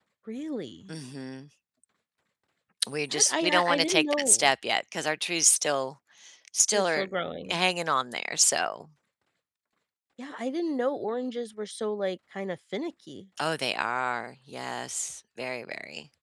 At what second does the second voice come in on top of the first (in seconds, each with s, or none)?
3.1 s